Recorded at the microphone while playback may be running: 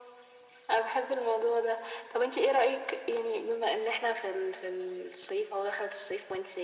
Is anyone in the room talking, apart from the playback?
No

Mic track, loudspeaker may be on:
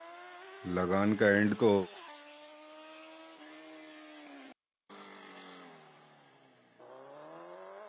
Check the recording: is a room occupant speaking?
Yes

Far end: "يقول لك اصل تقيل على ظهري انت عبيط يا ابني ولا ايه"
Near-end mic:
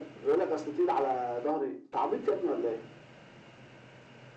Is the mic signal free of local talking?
Yes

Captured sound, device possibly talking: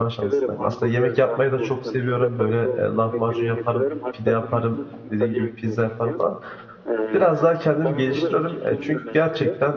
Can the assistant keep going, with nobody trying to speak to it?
No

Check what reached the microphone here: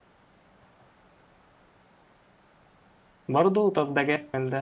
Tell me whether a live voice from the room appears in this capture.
Yes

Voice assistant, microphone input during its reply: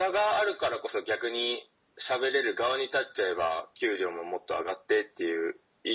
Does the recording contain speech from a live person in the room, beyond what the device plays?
No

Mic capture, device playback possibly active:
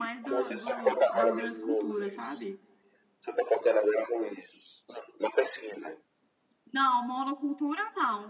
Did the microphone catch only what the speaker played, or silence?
No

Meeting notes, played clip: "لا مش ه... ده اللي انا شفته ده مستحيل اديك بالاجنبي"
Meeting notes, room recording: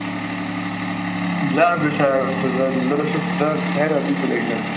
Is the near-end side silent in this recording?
Yes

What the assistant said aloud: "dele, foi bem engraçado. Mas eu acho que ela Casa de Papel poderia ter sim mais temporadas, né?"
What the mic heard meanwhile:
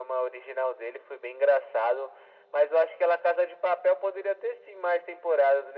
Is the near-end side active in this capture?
No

